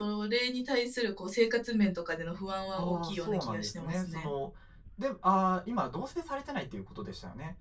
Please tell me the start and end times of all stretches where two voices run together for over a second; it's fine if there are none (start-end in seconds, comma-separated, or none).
2.8-4.3